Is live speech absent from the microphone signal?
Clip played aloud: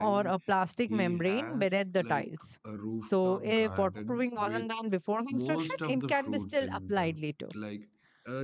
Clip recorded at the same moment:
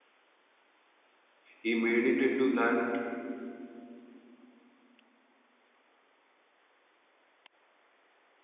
No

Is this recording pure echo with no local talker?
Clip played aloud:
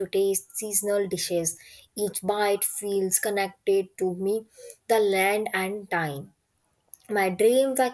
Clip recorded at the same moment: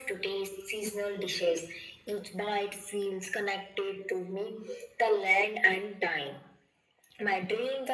Yes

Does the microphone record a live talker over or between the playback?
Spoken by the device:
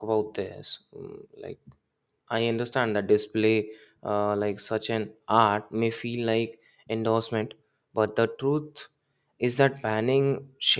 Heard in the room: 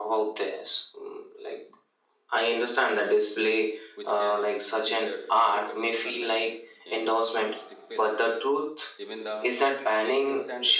Yes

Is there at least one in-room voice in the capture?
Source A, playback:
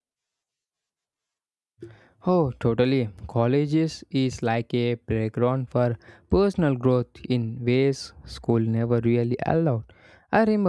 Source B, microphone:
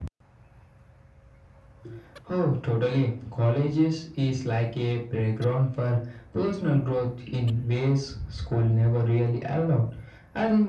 No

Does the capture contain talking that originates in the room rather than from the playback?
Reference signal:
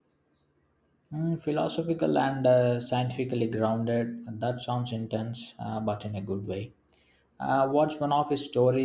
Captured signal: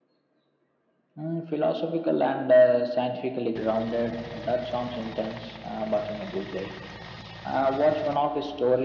No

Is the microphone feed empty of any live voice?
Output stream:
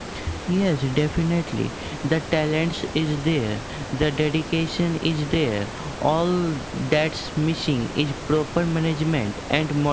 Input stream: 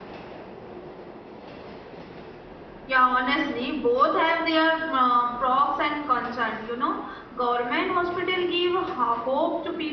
No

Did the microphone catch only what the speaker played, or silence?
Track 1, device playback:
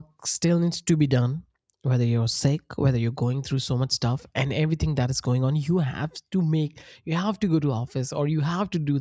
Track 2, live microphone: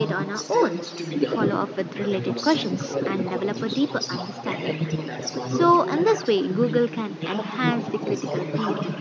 No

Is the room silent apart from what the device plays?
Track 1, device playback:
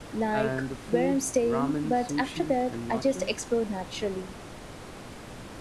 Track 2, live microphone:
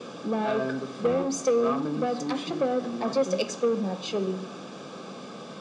Yes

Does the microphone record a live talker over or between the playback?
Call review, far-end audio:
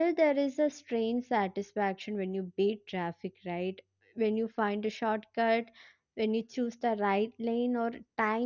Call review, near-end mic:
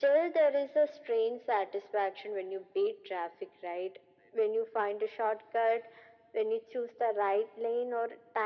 No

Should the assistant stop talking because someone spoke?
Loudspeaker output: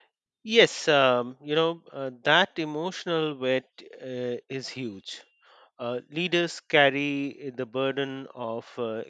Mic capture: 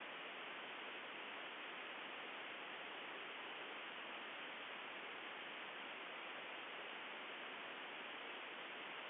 No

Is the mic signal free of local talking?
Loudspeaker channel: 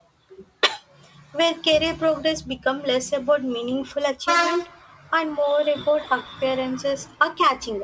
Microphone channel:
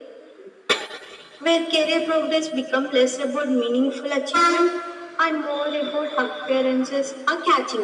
Yes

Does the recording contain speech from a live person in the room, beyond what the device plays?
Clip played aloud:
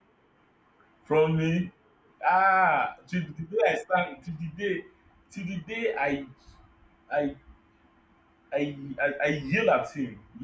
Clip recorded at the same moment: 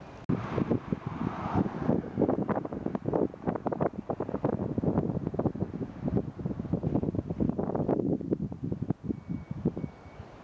No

